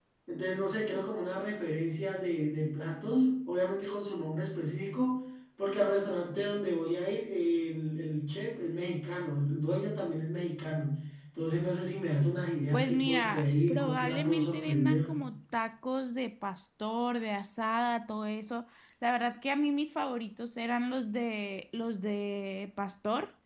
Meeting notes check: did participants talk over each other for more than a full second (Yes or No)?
Yes